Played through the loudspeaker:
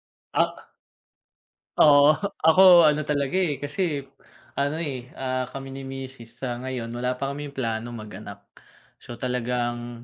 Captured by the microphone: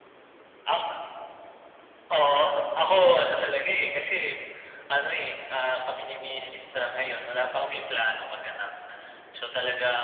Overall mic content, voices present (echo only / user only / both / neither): echo only